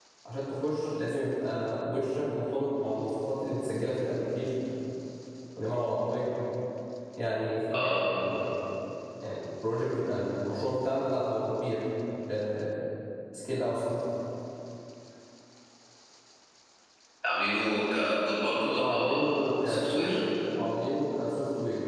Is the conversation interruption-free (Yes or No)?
No